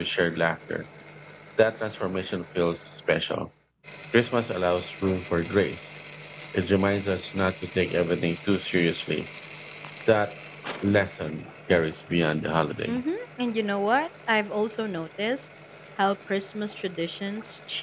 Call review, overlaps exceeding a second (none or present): none